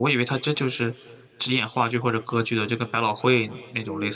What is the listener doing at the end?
taking over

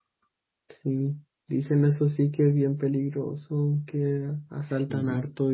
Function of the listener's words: listening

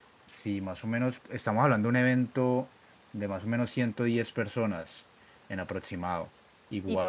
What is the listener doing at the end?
listening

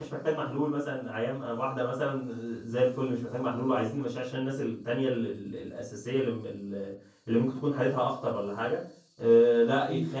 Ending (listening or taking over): listening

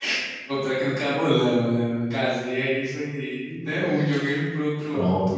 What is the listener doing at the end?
taking over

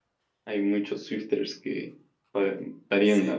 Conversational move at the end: taking over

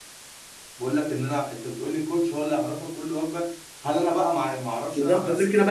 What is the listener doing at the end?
taking over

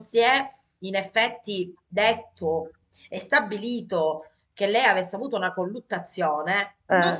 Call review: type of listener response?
listening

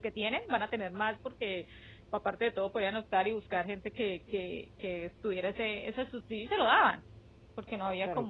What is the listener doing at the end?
taking over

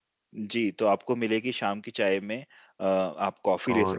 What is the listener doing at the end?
taking over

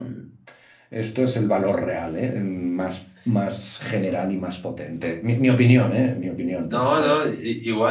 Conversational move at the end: taking over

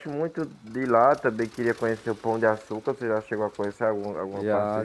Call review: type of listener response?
taking over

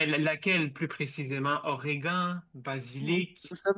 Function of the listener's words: taking over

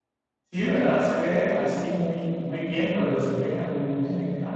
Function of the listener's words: listening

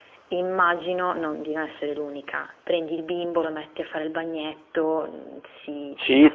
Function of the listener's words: taking over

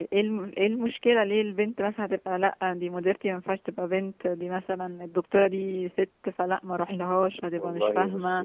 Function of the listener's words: taking over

